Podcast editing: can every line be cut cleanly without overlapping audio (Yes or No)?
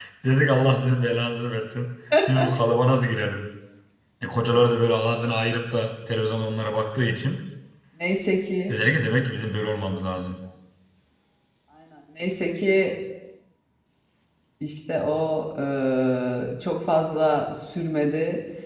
Yes